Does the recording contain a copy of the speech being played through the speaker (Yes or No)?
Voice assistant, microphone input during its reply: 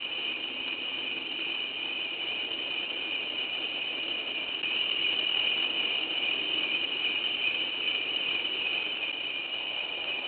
No